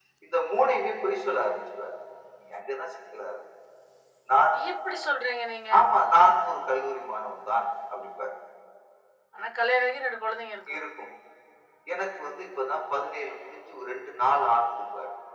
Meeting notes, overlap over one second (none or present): none